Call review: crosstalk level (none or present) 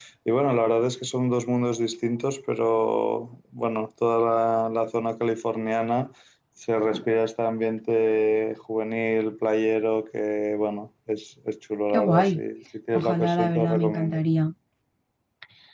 present